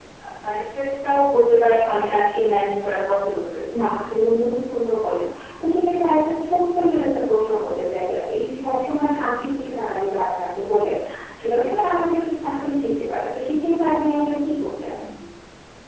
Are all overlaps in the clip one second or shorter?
Yes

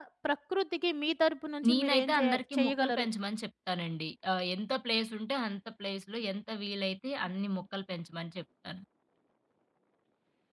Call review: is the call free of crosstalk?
No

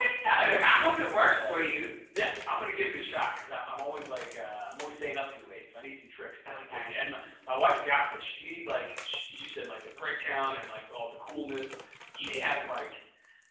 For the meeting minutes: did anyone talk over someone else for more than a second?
Yes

